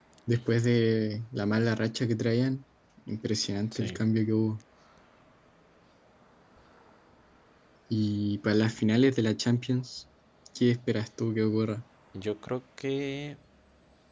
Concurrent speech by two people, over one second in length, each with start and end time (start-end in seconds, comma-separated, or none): none